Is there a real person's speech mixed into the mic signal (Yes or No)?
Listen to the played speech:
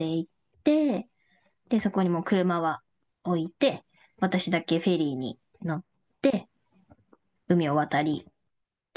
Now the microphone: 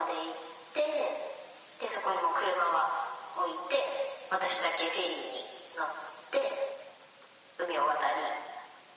No